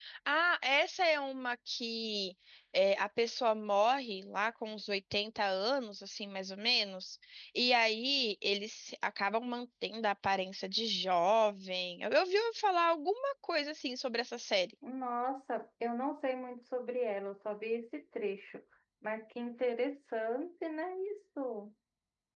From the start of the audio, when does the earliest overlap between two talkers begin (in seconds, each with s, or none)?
none